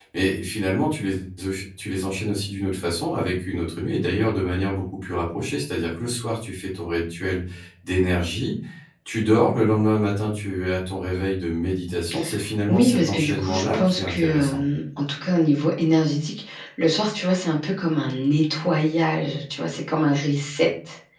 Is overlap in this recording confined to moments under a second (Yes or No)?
No